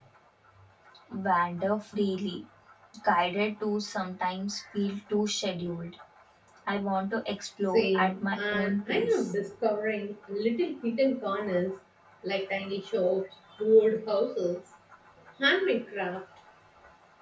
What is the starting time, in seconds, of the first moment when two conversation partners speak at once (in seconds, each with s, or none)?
7.7 s